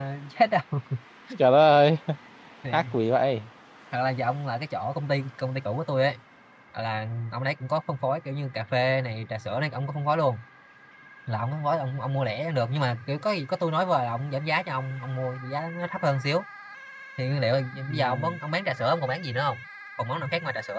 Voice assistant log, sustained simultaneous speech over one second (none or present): none